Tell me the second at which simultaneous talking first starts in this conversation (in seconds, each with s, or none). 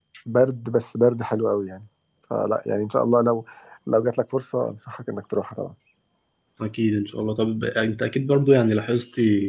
none